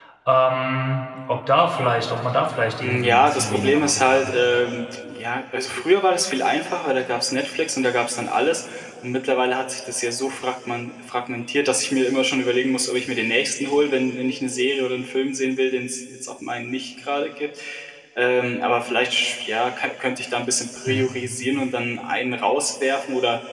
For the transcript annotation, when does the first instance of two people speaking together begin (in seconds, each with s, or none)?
2.8 s